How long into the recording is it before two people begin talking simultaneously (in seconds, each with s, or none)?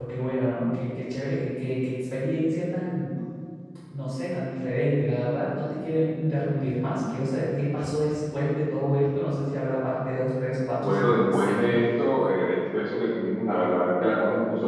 10.8 s